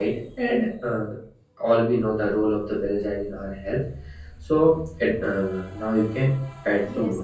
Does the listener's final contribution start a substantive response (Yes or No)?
Yes